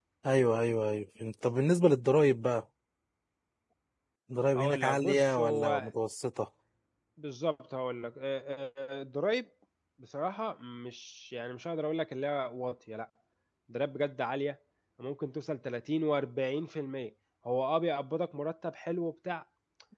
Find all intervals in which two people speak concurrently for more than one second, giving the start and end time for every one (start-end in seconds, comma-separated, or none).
4.5-5.9